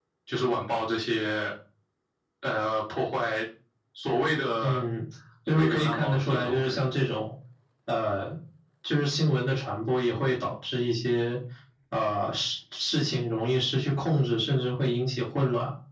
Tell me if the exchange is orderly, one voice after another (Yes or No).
No